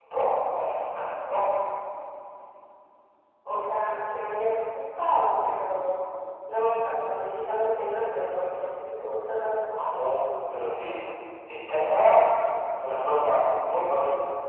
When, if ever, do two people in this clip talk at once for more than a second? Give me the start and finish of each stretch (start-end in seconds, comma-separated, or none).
none